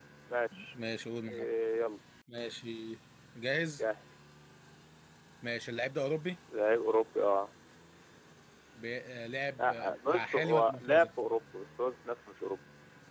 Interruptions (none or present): present